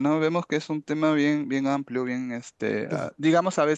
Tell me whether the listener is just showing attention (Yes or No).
Yes